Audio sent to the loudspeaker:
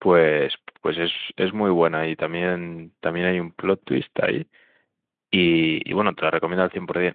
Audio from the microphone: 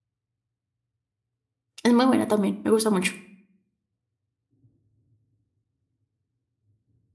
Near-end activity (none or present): present